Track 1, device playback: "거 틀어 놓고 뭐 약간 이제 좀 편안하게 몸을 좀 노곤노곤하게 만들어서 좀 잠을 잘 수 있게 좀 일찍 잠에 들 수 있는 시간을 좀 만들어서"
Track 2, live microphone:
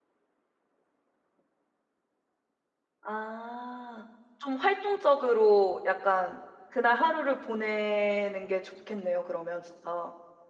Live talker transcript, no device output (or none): 아. 좀 활동적으로 약간 그날 하루를 보내는 게 좋겠네요 그러면 진짜.